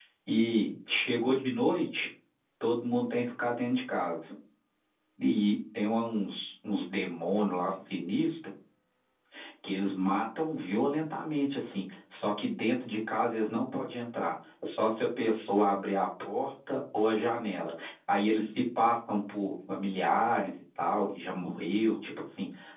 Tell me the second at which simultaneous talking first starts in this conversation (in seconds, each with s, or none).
none